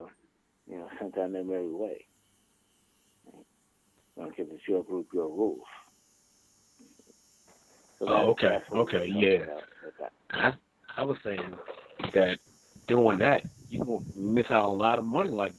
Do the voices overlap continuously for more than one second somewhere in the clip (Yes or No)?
Yes